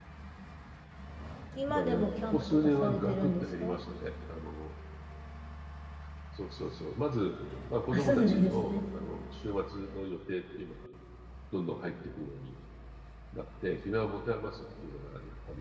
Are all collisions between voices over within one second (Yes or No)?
No